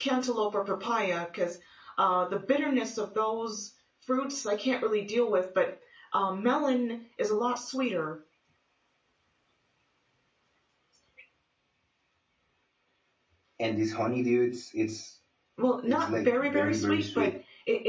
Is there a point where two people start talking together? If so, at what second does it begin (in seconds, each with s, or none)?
15.8 s